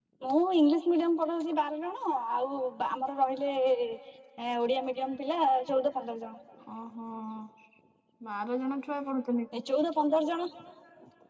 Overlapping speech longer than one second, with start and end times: none

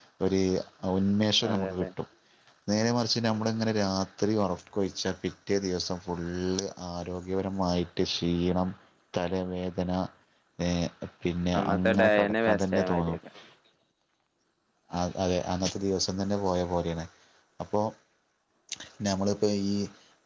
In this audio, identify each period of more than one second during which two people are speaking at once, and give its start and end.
11.6-13.2

